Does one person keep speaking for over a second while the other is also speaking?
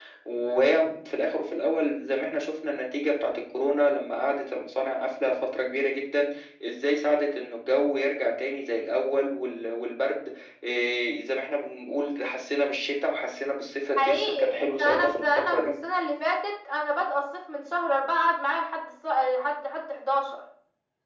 Yes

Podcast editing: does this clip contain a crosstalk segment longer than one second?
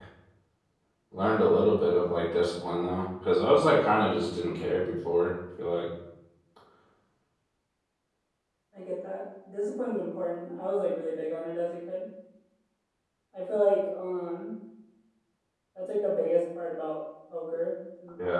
No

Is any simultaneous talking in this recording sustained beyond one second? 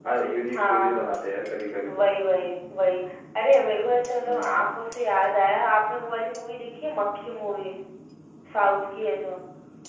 No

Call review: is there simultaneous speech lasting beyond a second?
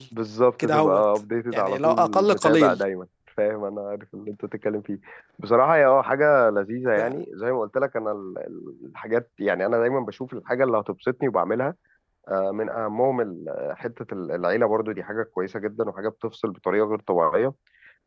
Yes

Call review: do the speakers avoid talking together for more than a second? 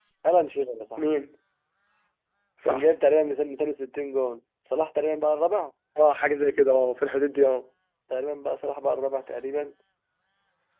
Yes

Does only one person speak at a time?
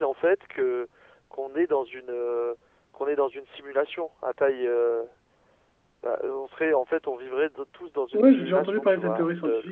No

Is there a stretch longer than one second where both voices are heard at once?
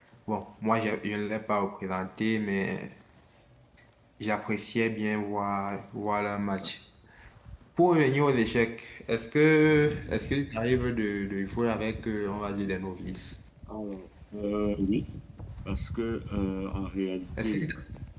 No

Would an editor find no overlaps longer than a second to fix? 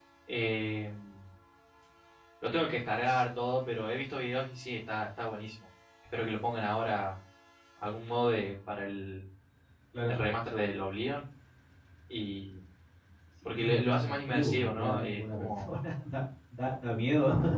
No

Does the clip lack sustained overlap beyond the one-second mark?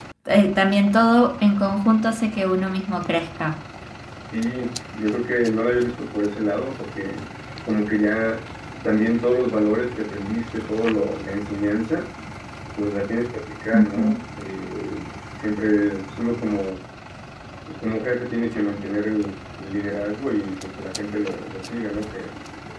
Yes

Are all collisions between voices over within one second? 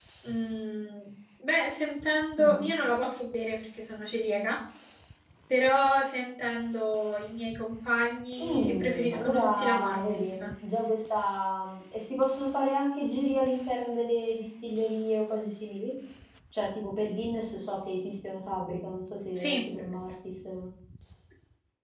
No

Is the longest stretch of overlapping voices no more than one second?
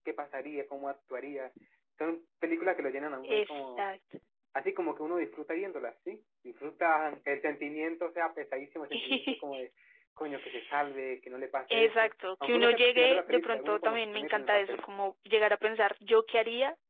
No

